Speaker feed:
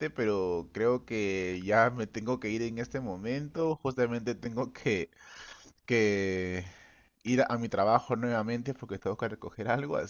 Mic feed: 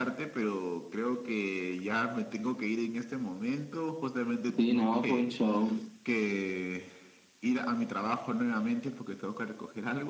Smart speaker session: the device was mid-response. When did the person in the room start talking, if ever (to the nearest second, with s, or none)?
5 s